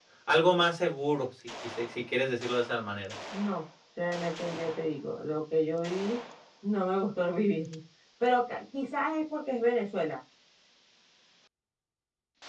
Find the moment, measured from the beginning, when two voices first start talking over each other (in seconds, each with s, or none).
none